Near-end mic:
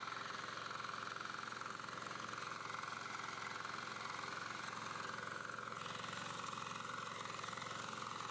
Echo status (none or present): none